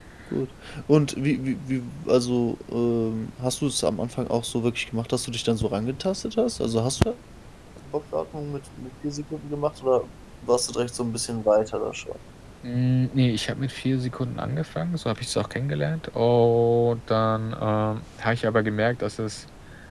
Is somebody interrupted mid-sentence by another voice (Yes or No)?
No